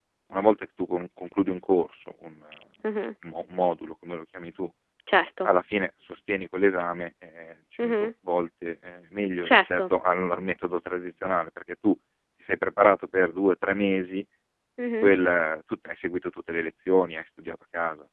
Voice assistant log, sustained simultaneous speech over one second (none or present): none